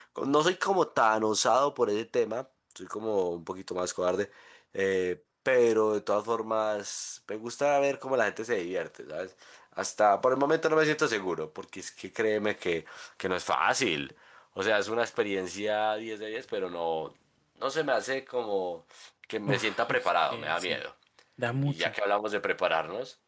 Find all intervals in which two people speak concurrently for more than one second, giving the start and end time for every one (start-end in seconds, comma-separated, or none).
19.5-20.8